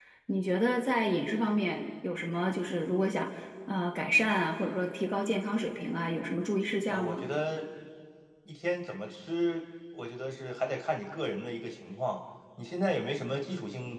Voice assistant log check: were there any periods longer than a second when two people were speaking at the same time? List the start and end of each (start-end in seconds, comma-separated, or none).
none